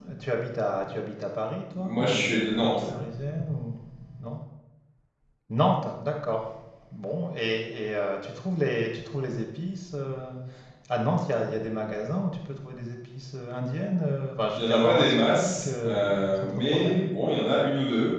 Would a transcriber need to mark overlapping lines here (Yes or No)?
Yes